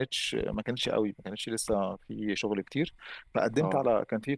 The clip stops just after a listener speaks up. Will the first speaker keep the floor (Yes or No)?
Yes